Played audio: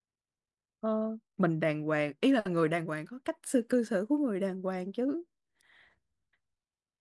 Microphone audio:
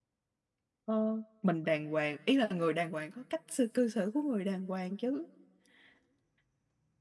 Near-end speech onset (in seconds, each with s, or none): none